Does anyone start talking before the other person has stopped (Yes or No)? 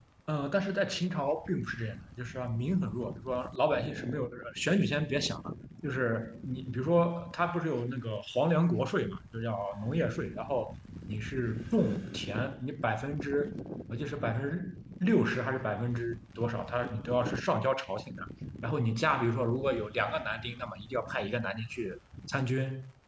No